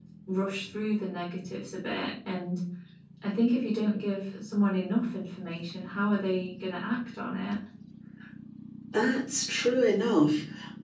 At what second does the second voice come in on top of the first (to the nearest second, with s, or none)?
none